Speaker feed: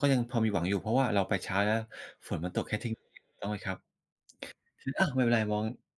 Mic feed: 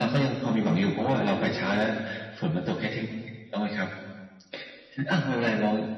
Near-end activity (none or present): present